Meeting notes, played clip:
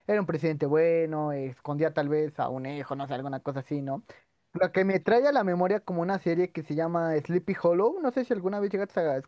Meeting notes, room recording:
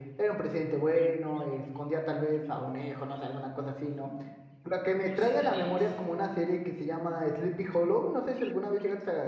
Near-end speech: present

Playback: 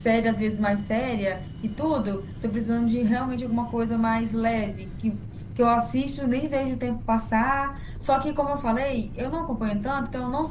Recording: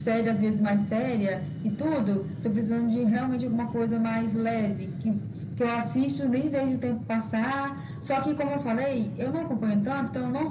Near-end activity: none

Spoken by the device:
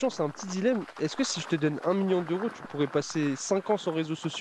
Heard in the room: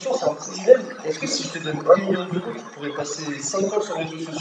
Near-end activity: none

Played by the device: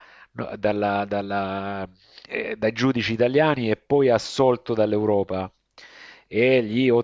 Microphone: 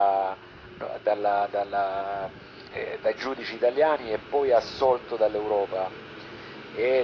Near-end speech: none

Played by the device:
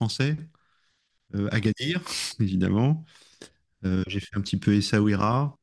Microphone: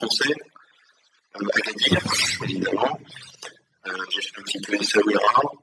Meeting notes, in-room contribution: present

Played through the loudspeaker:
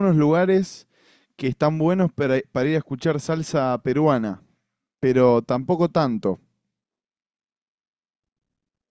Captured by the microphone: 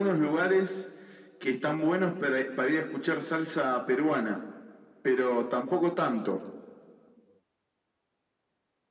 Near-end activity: none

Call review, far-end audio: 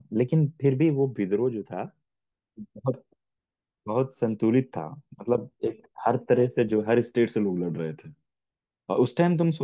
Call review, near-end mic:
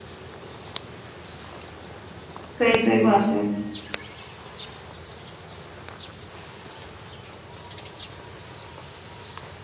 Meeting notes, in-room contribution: present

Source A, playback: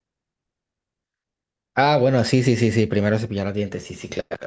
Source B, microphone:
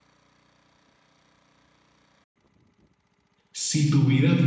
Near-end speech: present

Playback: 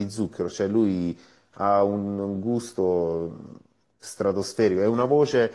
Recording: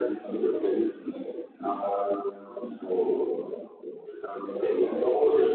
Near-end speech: none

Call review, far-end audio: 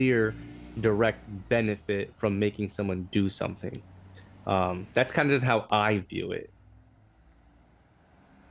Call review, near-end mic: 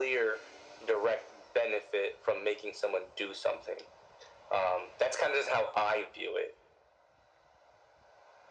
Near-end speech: none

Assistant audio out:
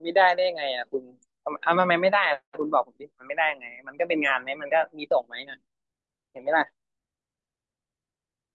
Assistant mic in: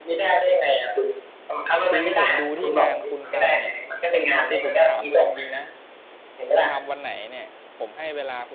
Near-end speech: present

